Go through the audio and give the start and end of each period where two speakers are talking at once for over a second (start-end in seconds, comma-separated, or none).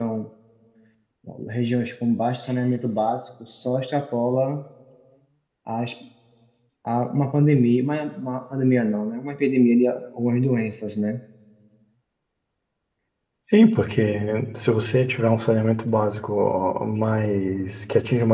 none